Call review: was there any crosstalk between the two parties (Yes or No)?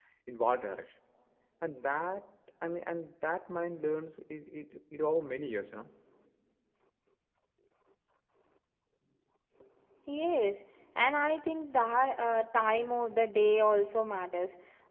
No